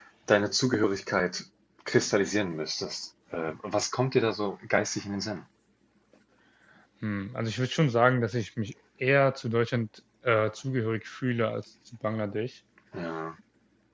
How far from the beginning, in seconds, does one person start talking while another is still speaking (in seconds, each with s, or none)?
none